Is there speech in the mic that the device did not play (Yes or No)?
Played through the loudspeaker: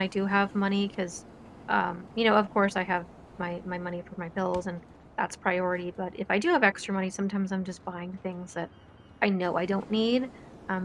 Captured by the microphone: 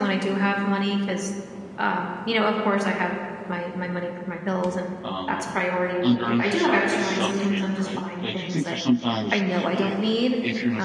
Yes